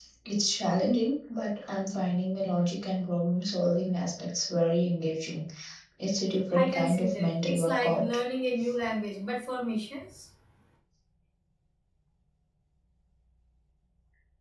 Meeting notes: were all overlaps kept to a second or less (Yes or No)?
No